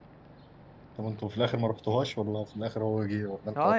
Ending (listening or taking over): taking over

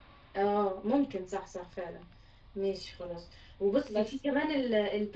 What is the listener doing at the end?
listening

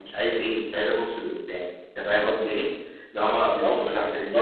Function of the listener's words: taking over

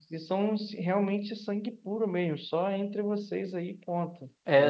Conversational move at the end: taking over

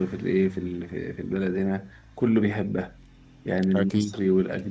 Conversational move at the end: listening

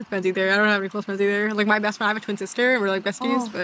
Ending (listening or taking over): taking over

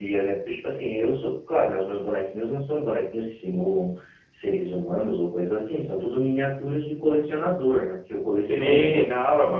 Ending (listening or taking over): taking over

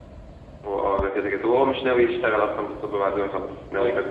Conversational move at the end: taking over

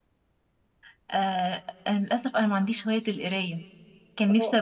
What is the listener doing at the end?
listening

